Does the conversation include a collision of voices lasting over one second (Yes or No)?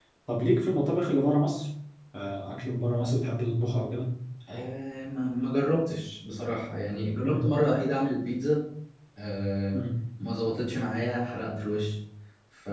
No